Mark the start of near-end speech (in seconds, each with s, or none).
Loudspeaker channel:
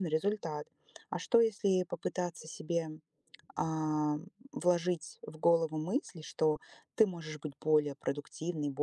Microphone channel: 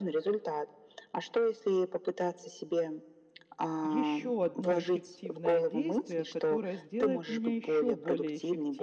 3.8 s